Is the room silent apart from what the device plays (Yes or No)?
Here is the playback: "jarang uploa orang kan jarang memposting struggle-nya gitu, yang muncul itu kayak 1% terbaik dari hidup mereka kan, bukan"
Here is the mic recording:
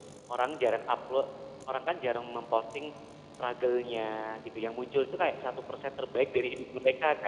Yes